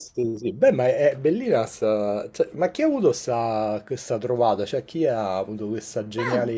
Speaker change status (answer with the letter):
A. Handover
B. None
A